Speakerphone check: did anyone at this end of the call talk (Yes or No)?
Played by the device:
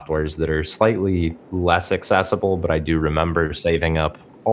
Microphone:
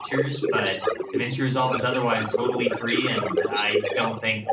Yes